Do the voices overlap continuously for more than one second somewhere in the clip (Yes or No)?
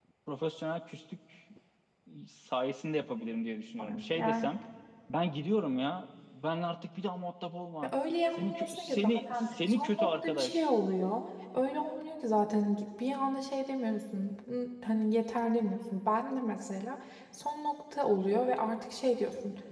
Yes